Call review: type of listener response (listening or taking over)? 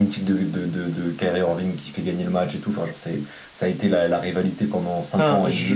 taking over